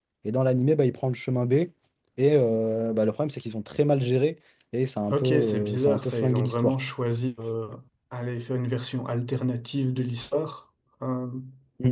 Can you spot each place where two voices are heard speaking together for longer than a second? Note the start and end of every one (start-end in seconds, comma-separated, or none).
5.1-6.7